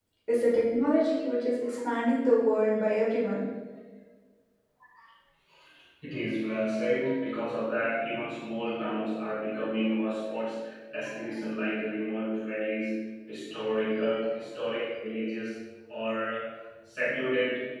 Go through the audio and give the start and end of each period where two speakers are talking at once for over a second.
none

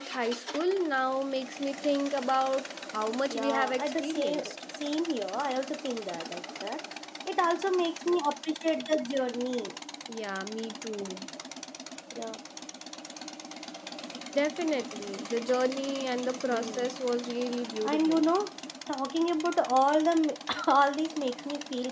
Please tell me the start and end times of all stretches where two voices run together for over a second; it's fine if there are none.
3.3-4.5

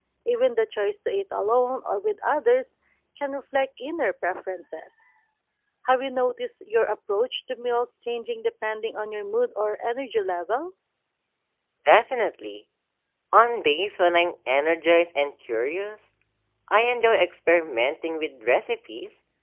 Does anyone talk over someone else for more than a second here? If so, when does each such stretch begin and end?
none

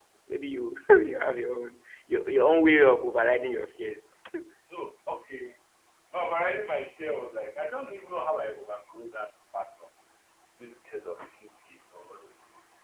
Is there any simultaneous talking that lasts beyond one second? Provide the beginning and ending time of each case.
none

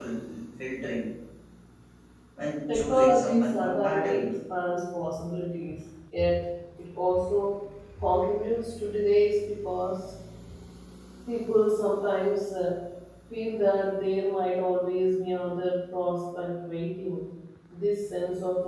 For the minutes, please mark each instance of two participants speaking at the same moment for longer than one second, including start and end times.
2.7-4.3

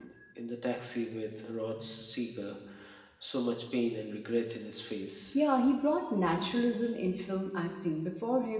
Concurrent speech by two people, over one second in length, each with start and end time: none

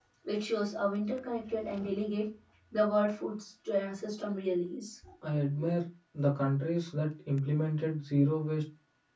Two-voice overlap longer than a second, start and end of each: none

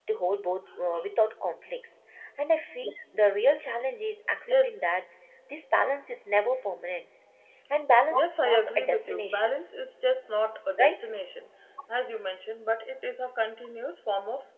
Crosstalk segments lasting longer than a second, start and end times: 8.1-9.6

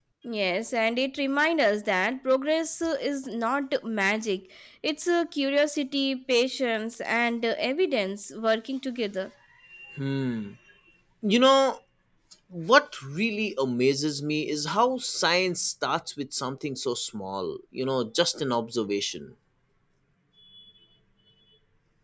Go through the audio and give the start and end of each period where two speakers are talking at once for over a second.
none

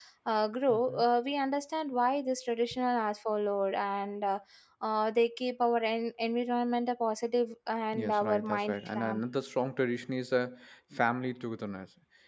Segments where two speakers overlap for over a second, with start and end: 7.9-9.2

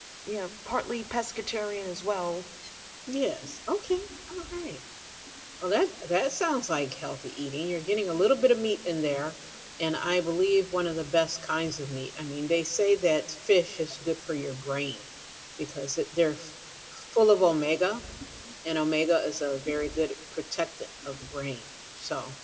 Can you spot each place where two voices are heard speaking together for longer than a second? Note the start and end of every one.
none

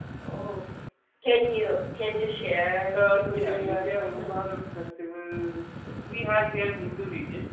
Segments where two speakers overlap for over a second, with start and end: 2.9-4.6

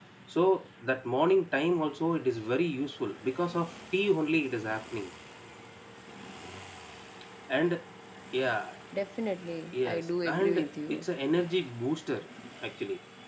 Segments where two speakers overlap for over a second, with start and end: 9.7-11.1

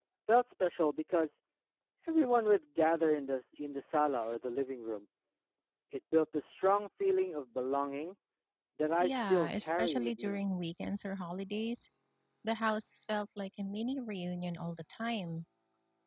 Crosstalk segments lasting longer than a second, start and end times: 9.0-10.4

